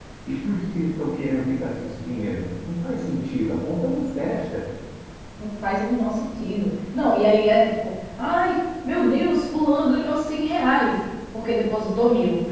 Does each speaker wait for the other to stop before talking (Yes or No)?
Yes